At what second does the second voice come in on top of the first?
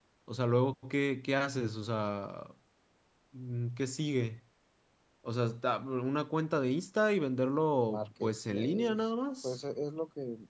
7.9 s

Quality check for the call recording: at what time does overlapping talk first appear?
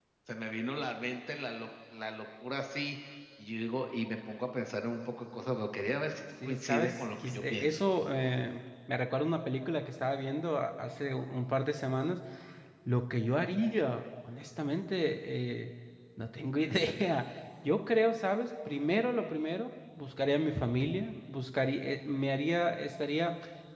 6.4 s

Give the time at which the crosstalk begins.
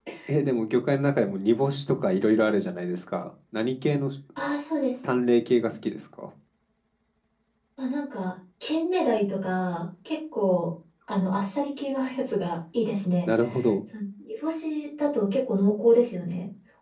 none

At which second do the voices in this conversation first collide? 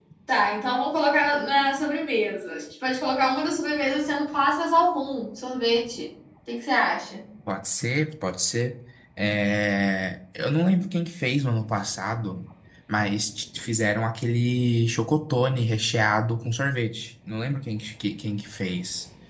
none

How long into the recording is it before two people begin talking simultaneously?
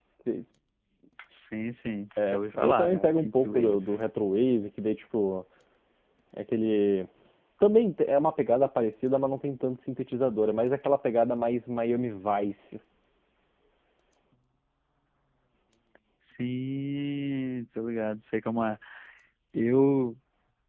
2.1 s

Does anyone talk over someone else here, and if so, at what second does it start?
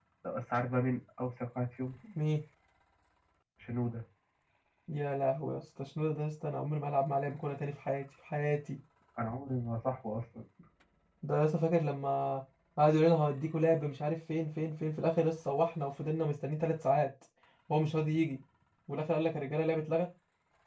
none

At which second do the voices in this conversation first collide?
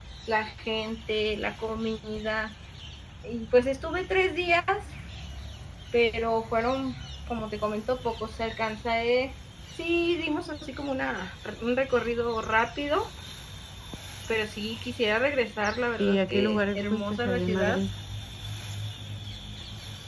16.0 s

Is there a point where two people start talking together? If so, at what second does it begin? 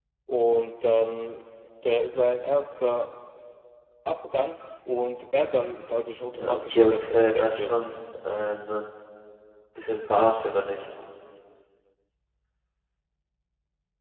6.3 s

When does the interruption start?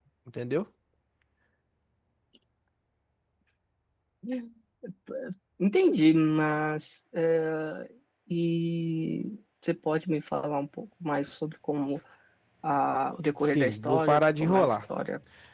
13.4 s

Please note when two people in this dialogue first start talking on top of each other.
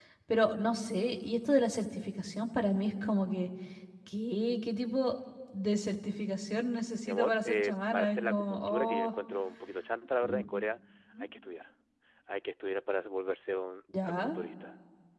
7.0 s

